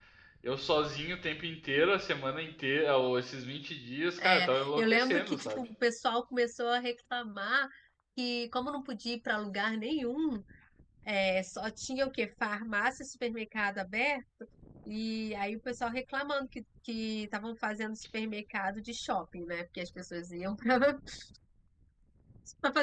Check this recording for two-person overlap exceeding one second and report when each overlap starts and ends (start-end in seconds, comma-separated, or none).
4.2-5.6